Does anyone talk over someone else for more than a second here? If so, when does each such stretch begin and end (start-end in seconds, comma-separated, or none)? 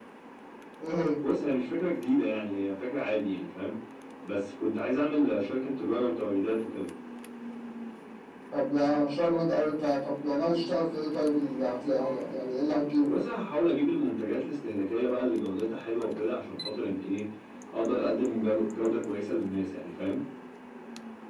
none